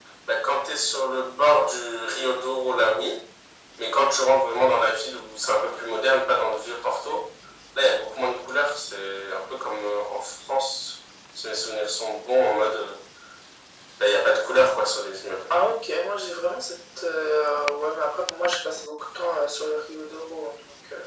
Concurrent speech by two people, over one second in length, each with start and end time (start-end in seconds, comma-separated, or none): none